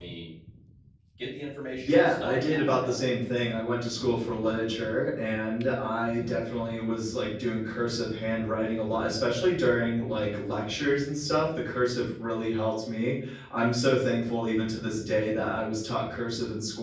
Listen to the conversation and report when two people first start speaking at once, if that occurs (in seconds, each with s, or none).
1.9 s